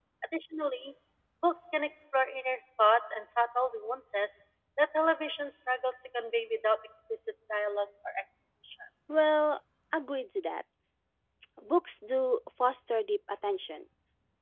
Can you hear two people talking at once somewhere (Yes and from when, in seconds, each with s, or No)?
No